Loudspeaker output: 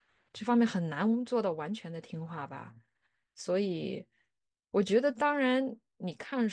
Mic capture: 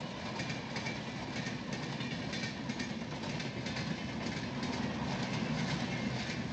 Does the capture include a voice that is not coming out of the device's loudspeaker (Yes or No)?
No